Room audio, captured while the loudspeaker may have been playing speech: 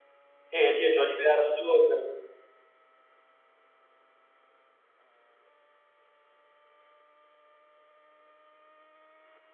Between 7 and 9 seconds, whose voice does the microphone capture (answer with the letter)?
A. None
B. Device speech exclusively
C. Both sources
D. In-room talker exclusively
A